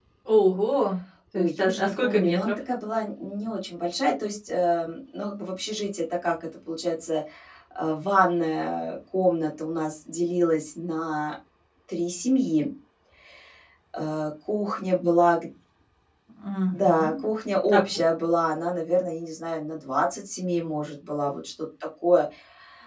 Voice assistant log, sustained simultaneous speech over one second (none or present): present